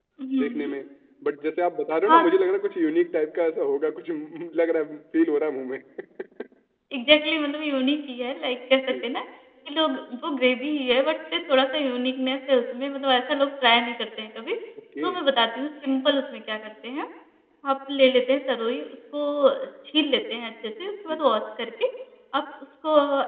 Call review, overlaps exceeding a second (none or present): none